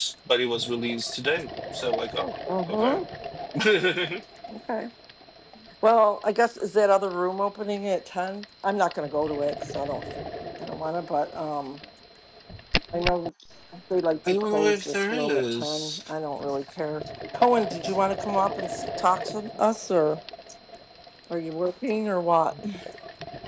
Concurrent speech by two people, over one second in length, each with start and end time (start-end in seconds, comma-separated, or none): 14.3-16.0